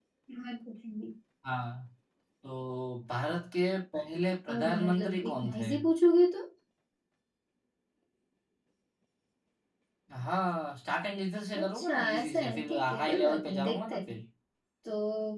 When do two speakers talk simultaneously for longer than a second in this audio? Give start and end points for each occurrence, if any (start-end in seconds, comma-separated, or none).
4.5-5.7, 11.6-14.2